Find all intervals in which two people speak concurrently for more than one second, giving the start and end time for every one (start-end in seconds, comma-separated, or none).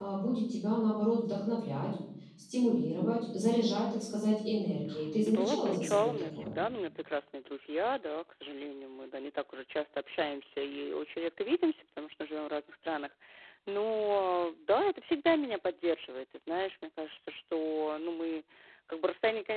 5.2-6.5